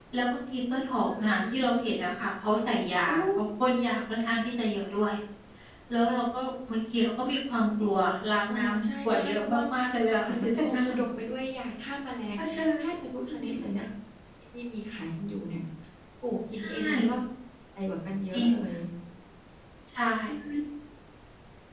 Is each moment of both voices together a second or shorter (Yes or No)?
No